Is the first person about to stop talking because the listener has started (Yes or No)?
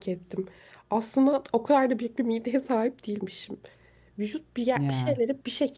No